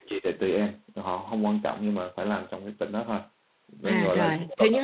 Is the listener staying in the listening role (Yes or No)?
No